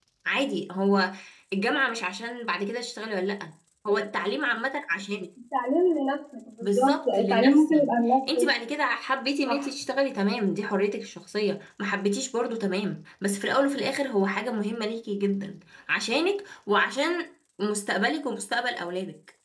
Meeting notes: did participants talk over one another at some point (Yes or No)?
Yes